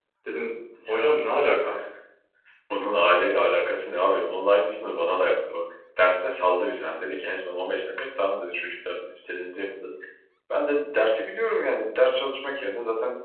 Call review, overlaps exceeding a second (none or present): none